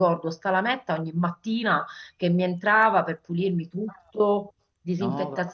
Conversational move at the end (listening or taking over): listening